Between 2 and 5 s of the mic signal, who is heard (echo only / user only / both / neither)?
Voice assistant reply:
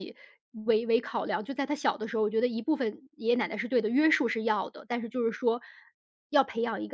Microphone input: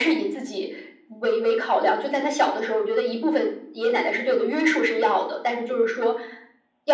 echo only